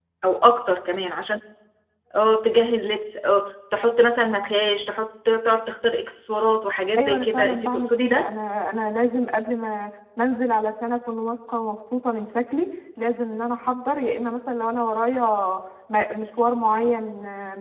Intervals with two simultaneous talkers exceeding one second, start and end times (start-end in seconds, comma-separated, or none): 7.0-8.3